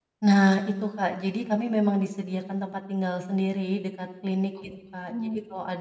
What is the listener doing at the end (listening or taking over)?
listening